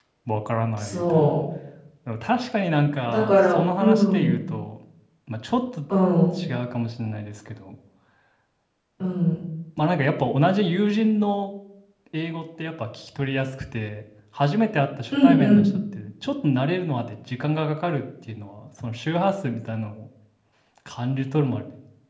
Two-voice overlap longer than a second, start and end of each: 3.1-4.3

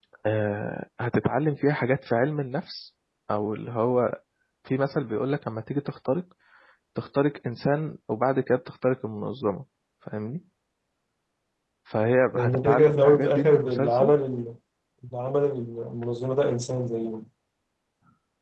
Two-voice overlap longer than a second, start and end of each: 12.3-14.1

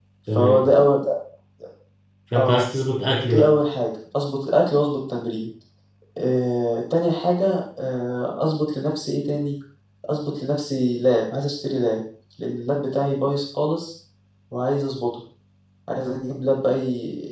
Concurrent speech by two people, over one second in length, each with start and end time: none

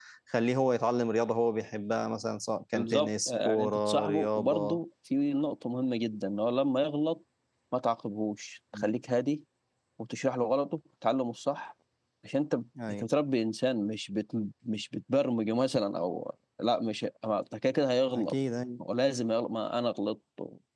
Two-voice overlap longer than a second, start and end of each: 2.7-4.8

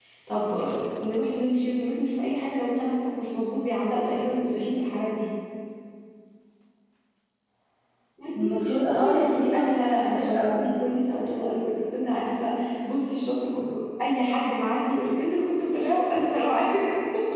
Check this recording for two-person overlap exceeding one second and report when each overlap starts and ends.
8.3-10.7

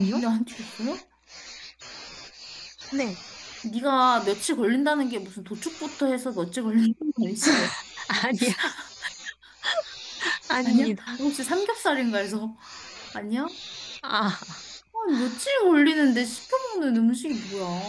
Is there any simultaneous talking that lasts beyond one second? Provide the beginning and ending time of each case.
none

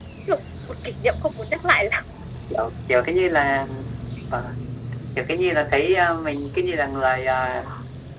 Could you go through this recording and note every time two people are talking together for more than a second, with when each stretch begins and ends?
none

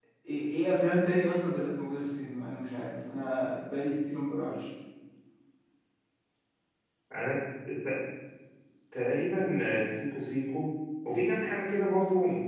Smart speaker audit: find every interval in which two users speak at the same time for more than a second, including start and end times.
none

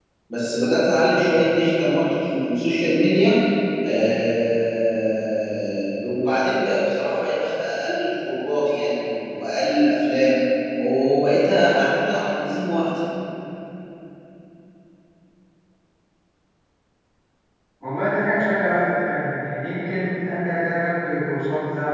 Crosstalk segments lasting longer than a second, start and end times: none

